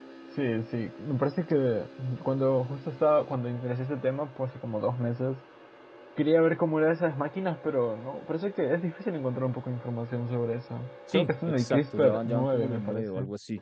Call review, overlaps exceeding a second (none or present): present